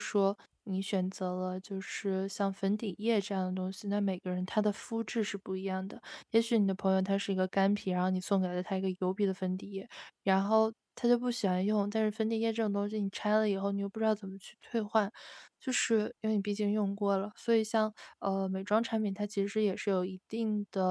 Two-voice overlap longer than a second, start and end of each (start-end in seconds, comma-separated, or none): none